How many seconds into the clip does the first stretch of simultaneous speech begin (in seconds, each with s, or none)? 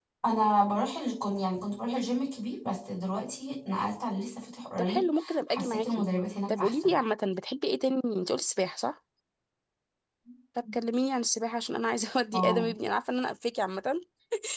4.8 s